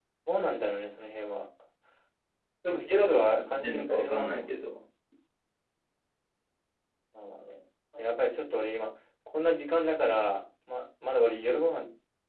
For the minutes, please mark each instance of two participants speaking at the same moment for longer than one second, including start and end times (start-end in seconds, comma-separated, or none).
2.7-4.5